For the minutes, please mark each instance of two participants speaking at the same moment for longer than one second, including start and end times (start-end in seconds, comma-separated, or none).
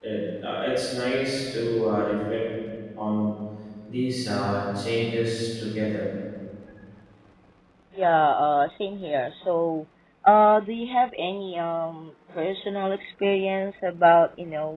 none